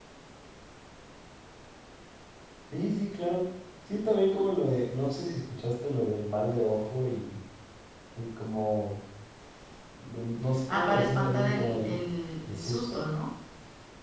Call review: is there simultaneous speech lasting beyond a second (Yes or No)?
Yes